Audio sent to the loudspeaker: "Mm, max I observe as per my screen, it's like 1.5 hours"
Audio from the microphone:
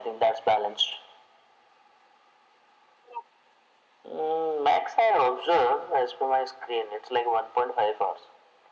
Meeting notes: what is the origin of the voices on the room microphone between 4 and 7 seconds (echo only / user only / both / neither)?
echo only